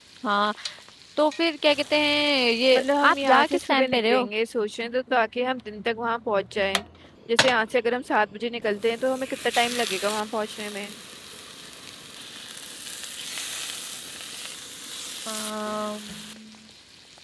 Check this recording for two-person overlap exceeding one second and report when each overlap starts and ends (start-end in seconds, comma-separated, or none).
2.7-4.3